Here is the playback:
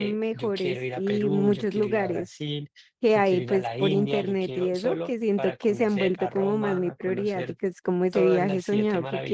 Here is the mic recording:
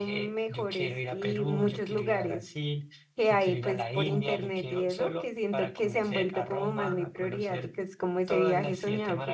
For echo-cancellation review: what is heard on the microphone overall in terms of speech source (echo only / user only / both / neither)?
echo only